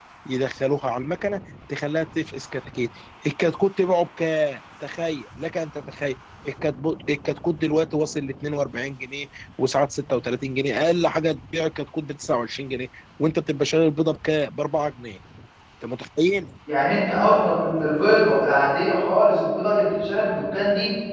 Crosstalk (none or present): none